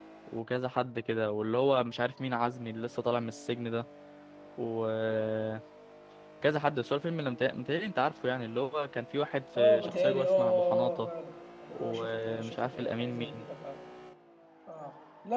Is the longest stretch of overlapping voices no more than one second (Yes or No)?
No